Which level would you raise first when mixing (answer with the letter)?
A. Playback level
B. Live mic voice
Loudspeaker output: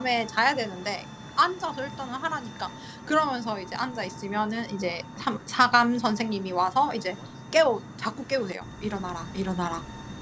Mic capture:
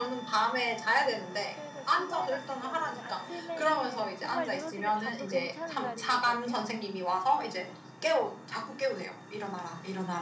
B